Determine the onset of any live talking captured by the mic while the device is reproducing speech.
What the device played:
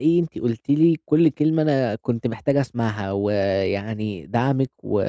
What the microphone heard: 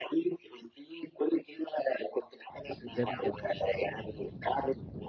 3.0 s

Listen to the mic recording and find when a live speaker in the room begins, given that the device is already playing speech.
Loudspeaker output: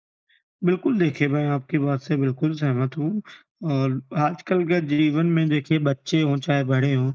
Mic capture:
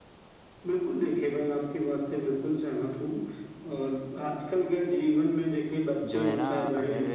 6.0 s

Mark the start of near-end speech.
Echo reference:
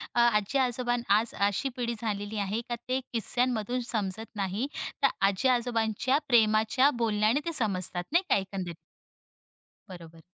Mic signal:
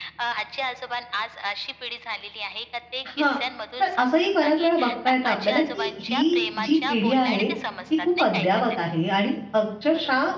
3.1 s

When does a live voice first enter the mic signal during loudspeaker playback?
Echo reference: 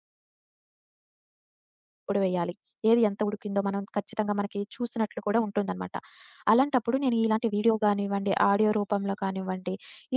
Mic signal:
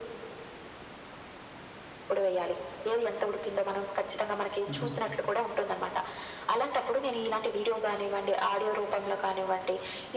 4.7 s

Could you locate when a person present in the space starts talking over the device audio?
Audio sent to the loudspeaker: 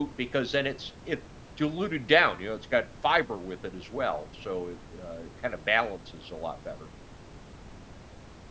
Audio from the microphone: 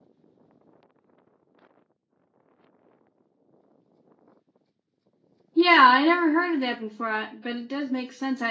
5.5 s

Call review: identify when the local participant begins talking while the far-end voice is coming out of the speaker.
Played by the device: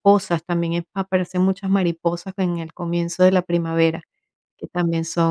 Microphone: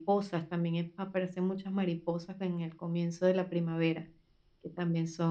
none

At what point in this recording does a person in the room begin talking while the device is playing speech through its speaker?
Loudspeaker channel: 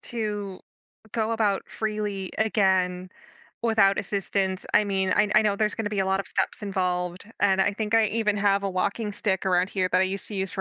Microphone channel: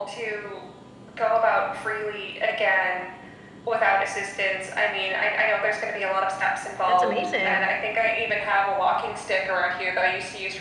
6.8 s

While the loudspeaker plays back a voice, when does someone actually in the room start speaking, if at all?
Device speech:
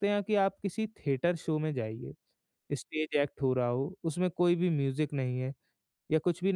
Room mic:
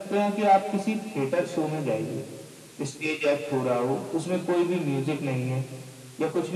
none

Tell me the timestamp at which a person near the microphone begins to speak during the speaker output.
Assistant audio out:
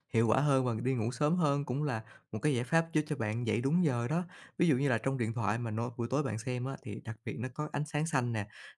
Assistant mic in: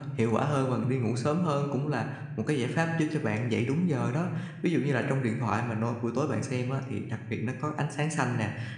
none

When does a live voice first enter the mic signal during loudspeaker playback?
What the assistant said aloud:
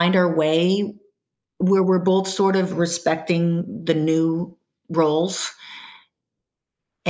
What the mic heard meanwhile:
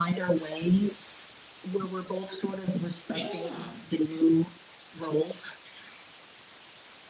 3.1 s

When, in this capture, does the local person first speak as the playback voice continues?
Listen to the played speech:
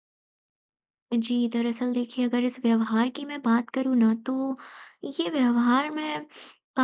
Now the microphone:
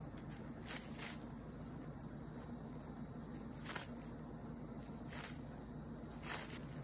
none

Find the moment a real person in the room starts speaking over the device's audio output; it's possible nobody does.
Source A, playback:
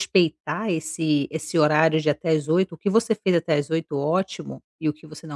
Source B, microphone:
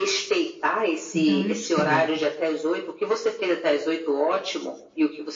1.1 s

